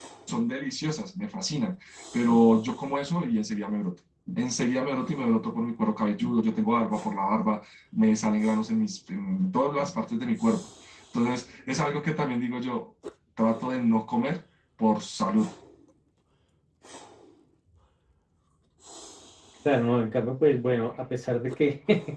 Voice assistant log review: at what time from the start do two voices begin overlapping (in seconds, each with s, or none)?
none